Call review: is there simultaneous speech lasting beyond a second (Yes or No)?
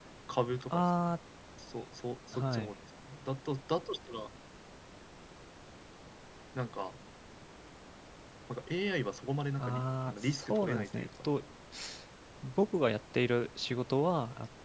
Yes